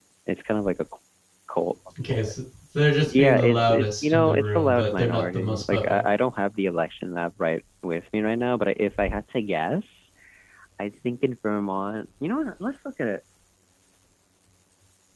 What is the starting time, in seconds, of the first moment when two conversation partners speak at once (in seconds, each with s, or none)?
3.1 s